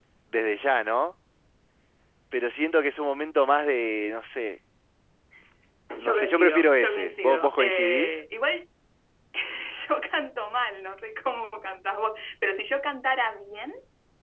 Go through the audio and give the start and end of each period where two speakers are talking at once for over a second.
6.0-8.2

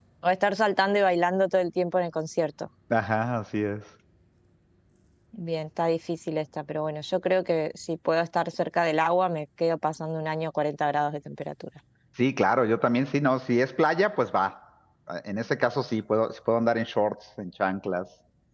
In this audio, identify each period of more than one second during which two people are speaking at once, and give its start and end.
none

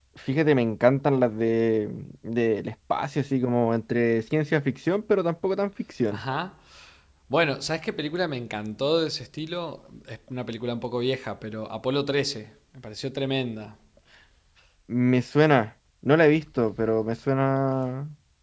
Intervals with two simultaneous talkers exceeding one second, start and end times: none

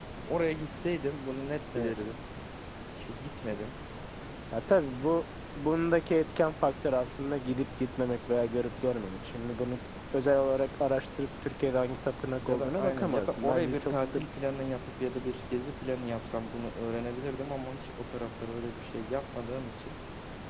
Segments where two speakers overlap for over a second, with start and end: 12.4-14.2

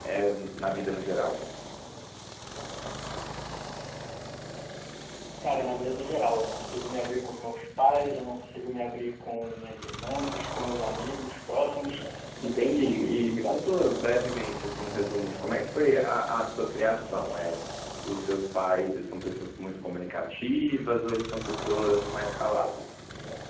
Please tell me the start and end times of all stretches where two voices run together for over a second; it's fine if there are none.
12.4-13.7

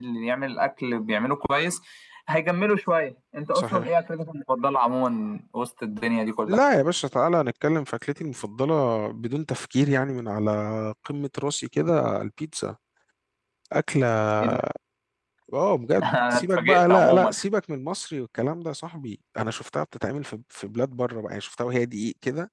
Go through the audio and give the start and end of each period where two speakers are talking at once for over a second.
16.1-17.3

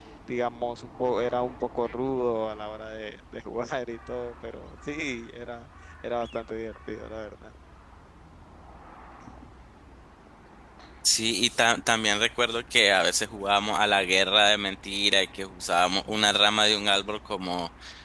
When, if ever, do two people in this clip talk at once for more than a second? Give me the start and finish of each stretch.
none

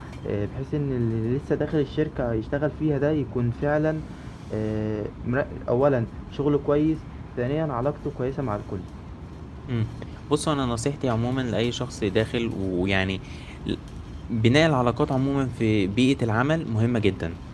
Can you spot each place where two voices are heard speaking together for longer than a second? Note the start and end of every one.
none

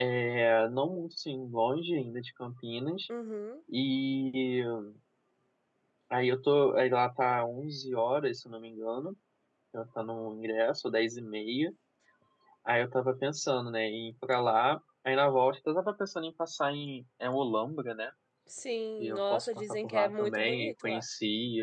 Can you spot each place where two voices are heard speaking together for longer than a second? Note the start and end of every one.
19.0-21.0

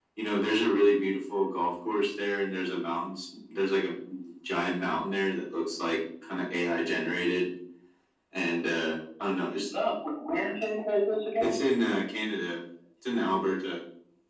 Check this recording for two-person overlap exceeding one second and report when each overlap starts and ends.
none

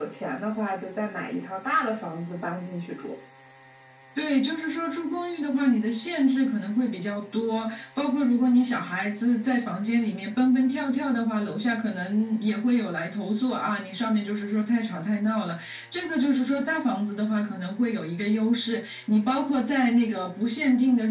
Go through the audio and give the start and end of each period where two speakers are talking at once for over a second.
none

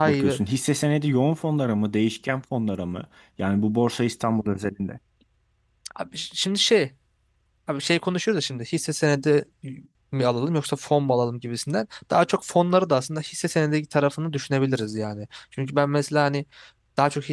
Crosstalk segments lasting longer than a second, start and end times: none

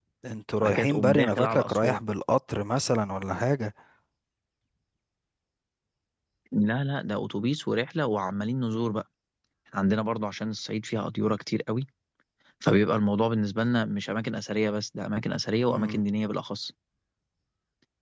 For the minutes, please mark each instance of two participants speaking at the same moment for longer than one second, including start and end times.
0.6-2.0

